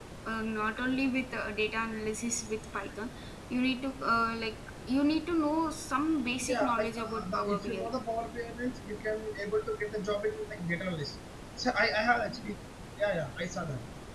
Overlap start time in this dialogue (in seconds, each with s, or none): 6.4 s